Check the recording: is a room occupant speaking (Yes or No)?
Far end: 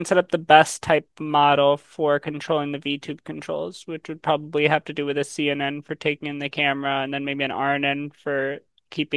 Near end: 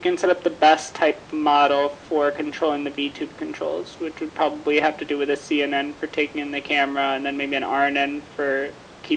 No